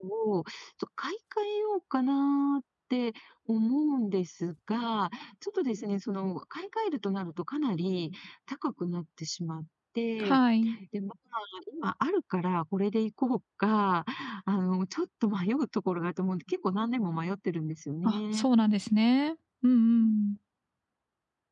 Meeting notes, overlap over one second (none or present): none